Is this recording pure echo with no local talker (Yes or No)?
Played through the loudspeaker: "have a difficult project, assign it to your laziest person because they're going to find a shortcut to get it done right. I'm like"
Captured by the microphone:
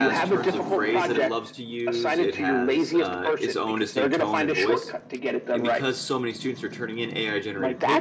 No